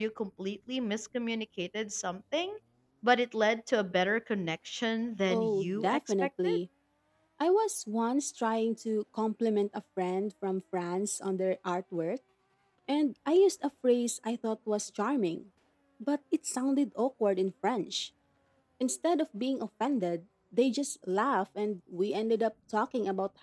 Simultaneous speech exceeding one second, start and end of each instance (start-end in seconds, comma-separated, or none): 5.3-6.6